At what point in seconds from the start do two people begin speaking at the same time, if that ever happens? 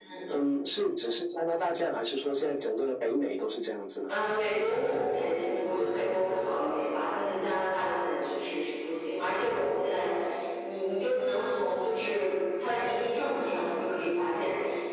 none

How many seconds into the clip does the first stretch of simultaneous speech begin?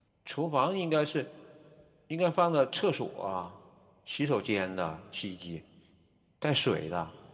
none

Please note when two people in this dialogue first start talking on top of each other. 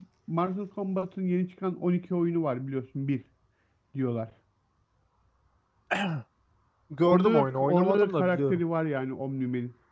7.1 s

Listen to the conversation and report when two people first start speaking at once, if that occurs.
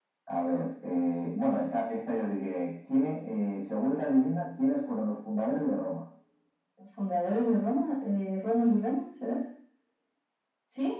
none

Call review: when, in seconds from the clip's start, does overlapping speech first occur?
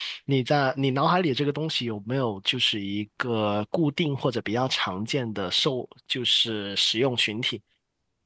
none

